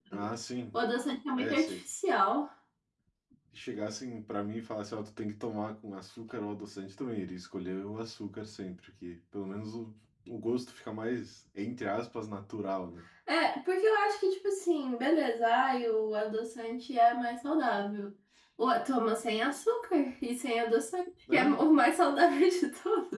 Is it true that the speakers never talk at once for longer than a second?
Yes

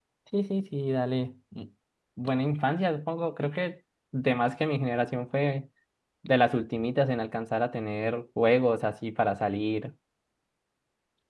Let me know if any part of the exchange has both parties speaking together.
No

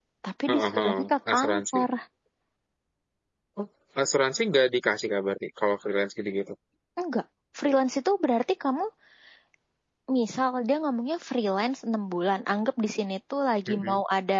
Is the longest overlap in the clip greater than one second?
Yes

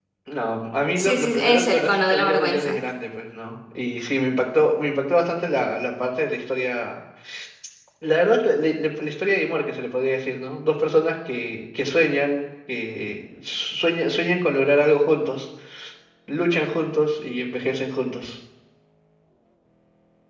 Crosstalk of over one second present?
Yes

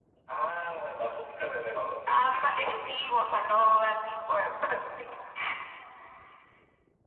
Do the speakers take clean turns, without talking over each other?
Yes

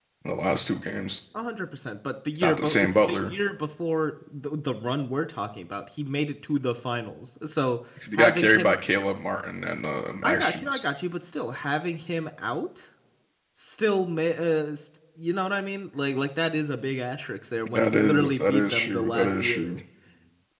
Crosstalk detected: Yes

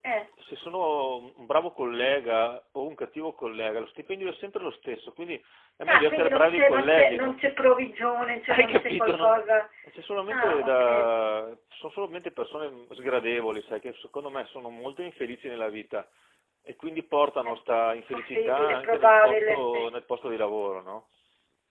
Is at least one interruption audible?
Yes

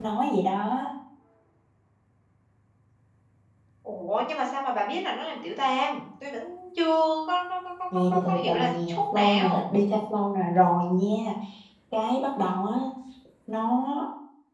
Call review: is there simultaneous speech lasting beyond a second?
Yes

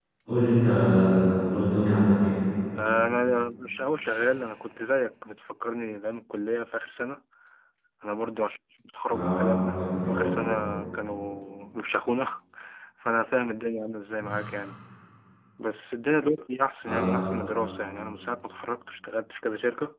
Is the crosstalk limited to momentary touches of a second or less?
No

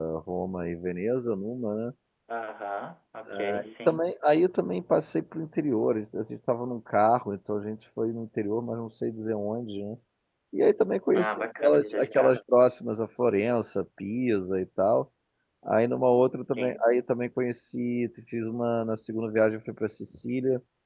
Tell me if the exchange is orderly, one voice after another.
No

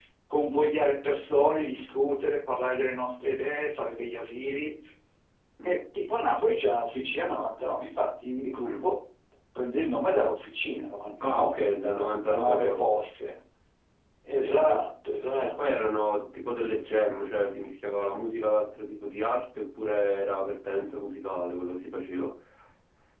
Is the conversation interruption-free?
No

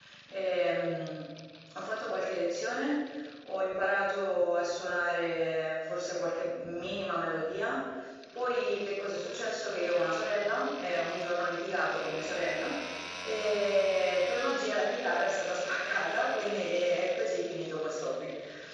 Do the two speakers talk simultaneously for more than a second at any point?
No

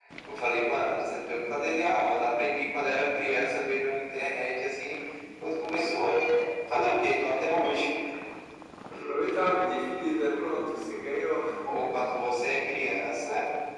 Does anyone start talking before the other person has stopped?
No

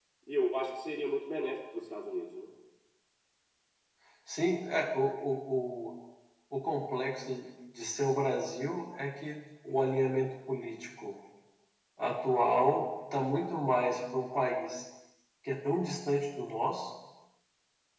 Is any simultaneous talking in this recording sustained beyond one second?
No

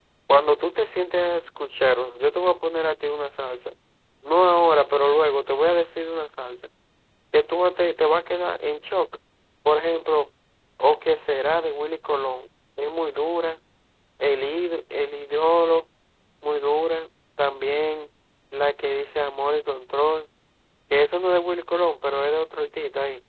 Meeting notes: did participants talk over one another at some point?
No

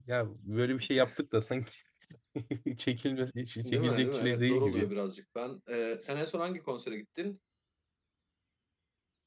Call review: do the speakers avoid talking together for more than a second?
No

